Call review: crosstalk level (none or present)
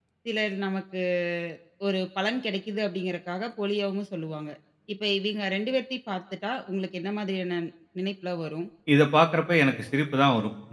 none